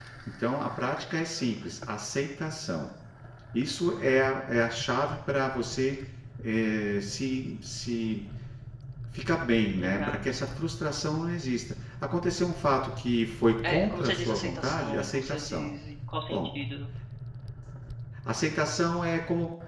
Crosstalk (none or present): present